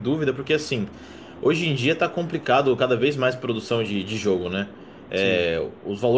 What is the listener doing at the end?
listening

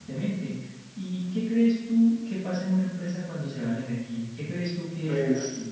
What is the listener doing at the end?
taking over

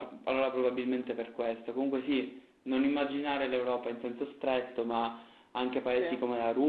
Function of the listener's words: listening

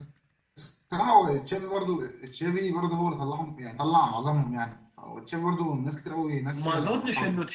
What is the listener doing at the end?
taking over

